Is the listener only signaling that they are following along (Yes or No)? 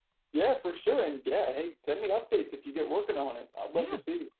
No